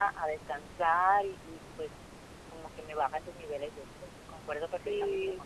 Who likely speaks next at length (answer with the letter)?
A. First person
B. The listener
B